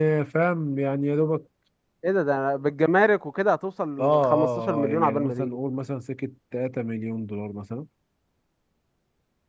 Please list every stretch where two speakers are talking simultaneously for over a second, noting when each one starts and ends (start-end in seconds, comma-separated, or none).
4.0-5.6